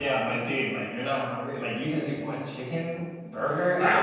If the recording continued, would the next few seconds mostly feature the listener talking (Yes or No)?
Yes